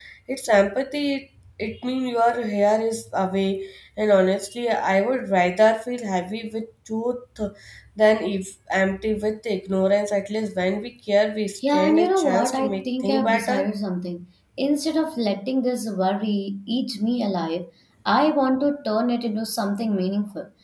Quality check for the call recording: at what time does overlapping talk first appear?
11.6 s

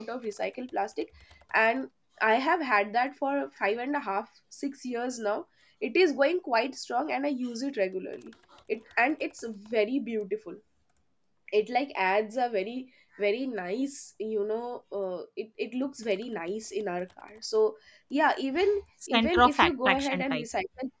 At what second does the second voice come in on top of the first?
19.0 s

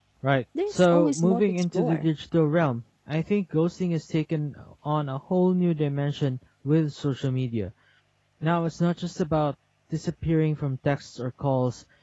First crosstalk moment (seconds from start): 0.7 s

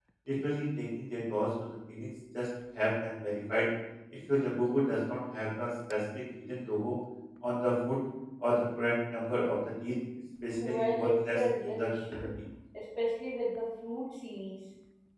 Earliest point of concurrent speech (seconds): 10.6 s

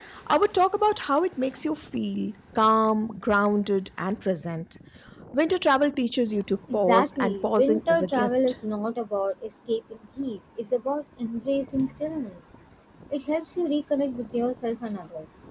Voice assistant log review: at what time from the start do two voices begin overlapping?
6.7 s

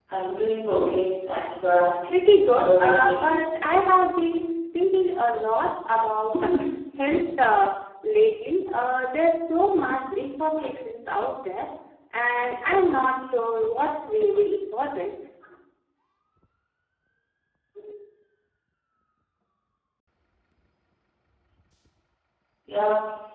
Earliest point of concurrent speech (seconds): 2.1 s

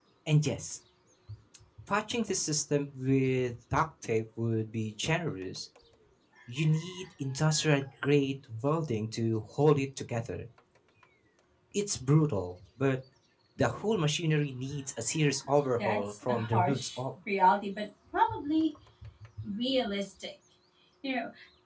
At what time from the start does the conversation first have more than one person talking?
15.8 s

